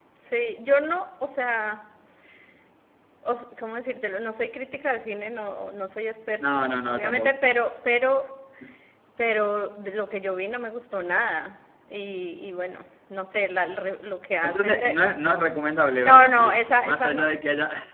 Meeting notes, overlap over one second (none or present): present